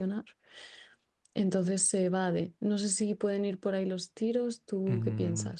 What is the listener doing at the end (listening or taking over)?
taking over